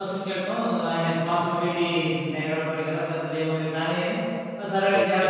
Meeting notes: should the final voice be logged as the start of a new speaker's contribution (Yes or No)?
Yes